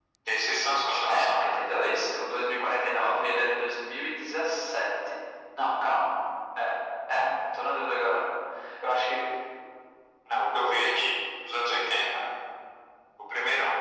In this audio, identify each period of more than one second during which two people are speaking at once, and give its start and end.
none

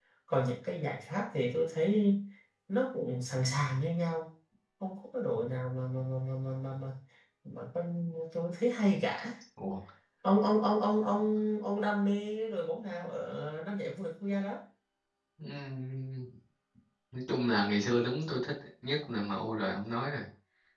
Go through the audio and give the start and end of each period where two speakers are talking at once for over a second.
none

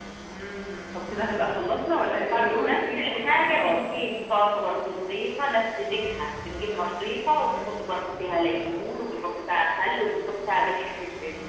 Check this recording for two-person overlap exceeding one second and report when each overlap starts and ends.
2.3-3.8

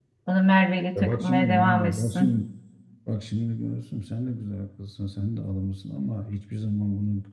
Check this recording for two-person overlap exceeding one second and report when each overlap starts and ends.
1.0-2.4

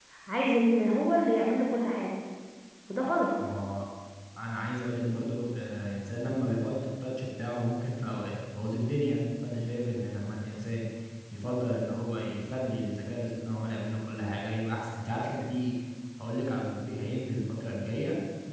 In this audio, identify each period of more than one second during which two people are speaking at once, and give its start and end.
none

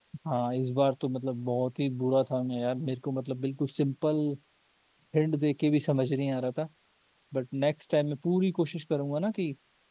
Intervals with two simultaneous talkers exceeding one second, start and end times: none

